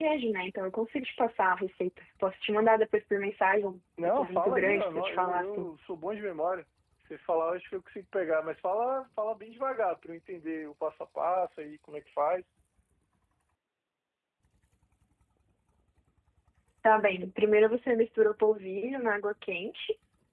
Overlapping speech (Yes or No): Yes